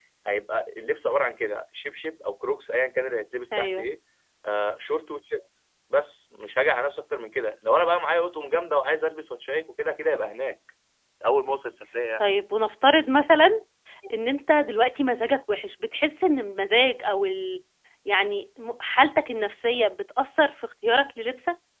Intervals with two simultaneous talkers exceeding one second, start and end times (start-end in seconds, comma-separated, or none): none